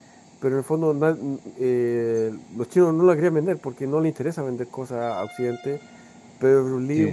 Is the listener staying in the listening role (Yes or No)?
Yes